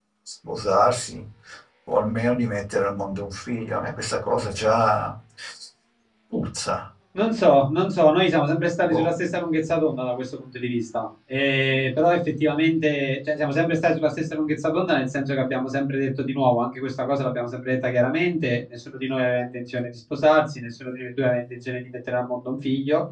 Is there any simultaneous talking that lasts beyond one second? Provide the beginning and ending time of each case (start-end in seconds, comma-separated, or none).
none